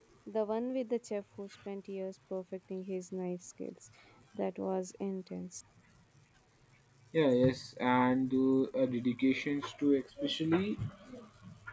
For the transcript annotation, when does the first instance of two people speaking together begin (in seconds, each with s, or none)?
none